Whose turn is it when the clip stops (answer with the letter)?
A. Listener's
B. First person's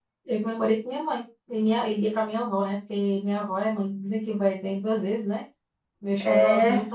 B